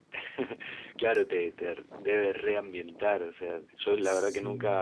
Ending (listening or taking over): listening